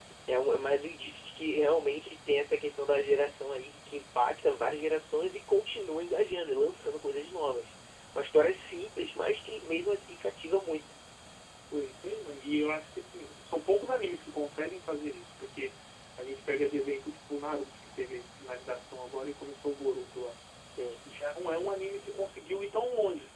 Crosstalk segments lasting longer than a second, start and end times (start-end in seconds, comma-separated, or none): none